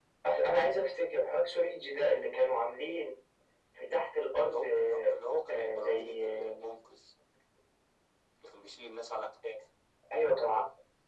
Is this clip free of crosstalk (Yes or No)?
No